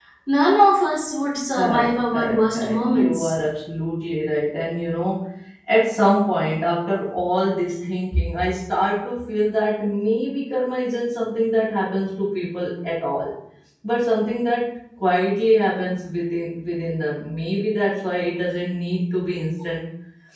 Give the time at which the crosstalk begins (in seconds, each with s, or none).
1.5 s